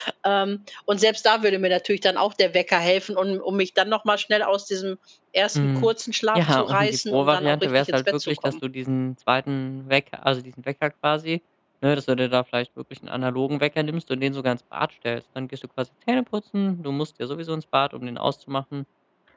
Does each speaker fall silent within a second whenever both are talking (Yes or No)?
No